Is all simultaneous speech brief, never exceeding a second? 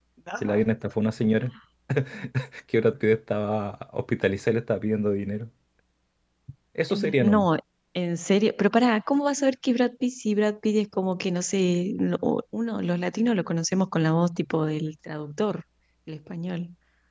Yes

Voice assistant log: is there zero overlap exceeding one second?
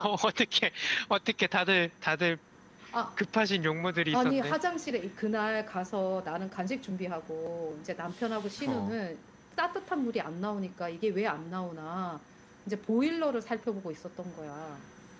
Yes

